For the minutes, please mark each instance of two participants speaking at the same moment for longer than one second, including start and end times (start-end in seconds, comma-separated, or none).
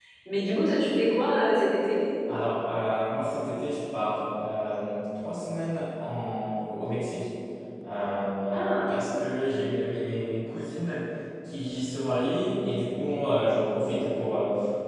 none